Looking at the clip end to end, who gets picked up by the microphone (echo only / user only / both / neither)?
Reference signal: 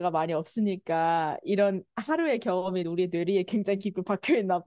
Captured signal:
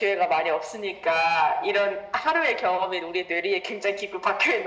echo only